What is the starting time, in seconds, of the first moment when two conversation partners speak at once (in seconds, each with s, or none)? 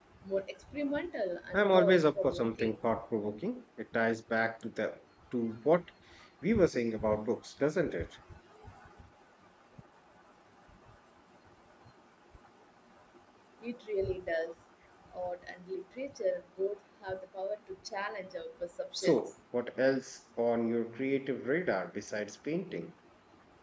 1.5 s